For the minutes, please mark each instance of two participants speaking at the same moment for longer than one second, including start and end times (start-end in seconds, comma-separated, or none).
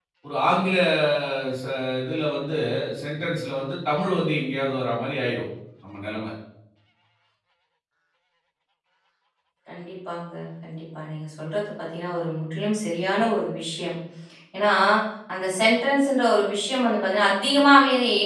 none